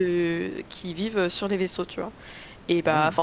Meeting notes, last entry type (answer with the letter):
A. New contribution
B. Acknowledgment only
B